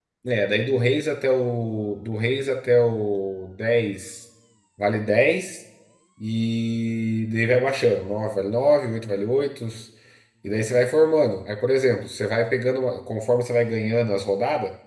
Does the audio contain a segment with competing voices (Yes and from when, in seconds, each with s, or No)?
No